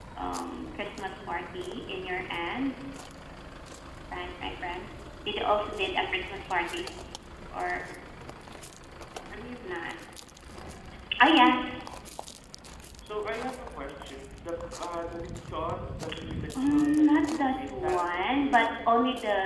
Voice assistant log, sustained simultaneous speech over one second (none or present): present